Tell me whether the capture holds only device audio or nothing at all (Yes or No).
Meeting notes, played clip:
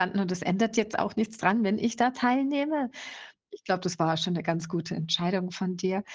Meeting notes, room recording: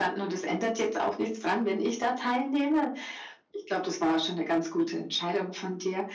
Yes